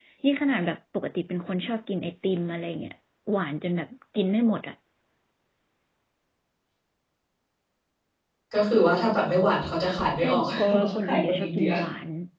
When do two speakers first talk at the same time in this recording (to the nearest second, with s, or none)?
10 s